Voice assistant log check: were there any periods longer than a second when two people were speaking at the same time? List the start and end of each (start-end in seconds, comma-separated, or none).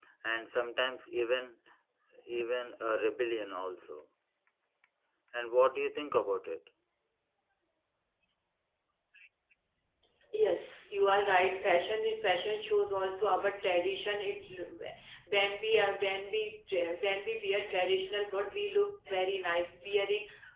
none